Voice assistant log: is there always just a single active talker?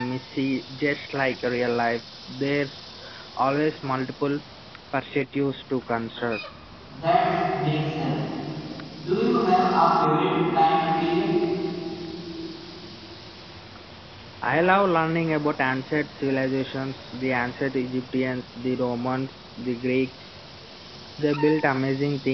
Yes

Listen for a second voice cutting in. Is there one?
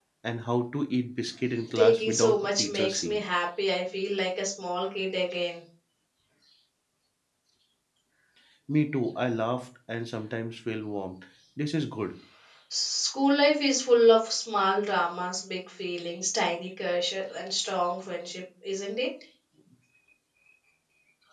Yes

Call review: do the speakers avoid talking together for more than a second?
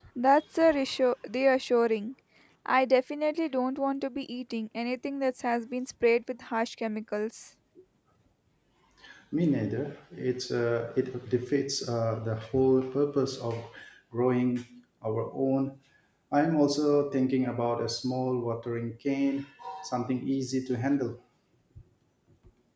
Yes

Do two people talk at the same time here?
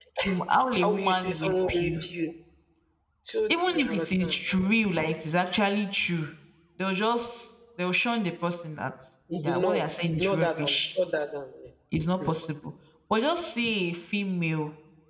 Yes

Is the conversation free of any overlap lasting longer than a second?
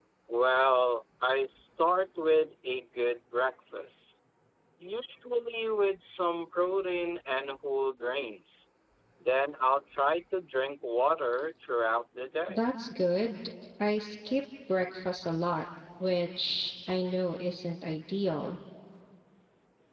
Yes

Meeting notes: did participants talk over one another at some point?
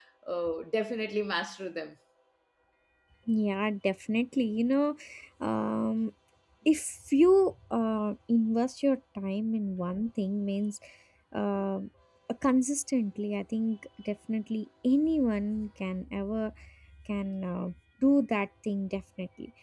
No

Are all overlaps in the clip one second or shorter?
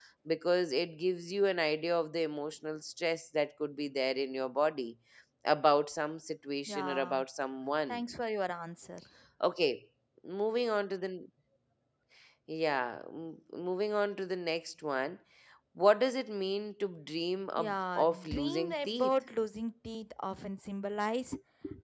No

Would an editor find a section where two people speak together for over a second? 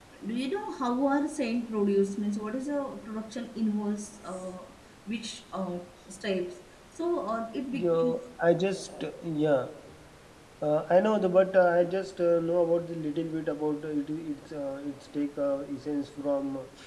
No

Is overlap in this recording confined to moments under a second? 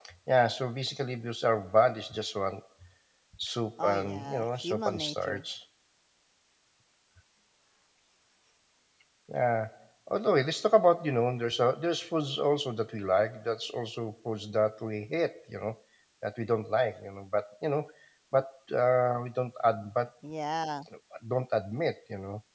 No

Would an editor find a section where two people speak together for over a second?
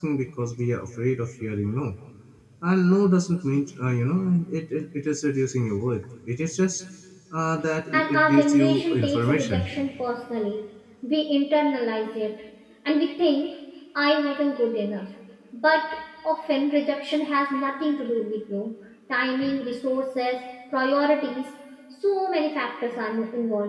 Yes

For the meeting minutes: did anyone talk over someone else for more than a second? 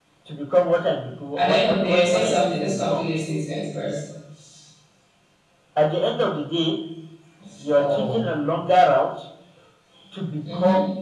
Yes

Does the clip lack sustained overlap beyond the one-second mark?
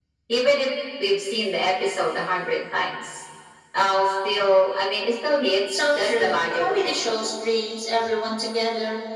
No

